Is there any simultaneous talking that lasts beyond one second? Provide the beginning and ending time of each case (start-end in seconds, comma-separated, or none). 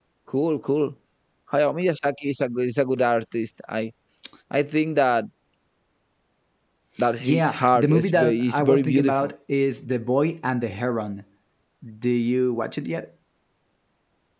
7.2-9.3